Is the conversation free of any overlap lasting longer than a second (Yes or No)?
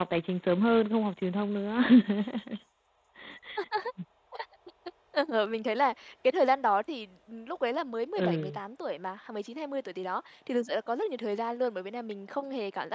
Yes